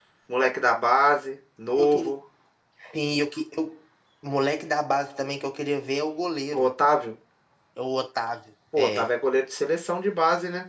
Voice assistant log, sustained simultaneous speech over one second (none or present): none